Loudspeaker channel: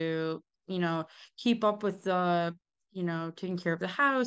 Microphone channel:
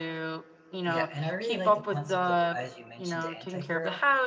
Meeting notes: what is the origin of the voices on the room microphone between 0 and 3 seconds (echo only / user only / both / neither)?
both